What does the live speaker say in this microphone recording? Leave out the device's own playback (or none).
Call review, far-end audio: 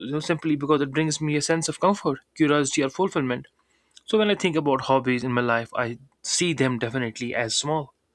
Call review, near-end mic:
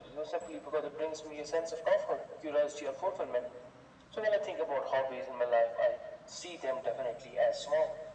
none